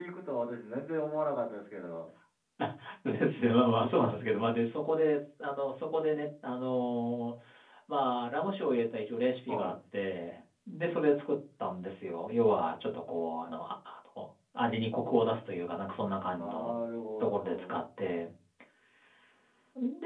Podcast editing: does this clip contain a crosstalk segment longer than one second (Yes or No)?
No